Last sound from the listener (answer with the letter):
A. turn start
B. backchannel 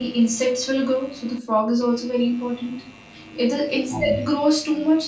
B